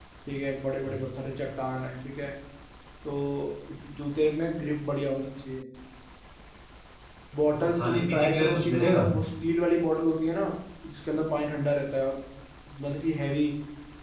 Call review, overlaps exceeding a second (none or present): present